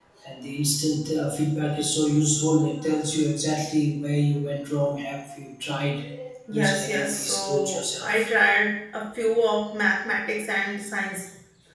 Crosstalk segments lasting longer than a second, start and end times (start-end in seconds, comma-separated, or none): 6.5-8.3